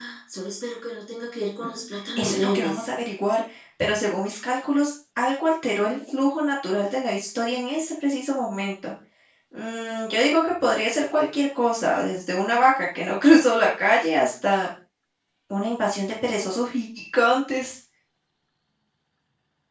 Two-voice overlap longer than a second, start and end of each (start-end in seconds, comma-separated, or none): 1.6-2.8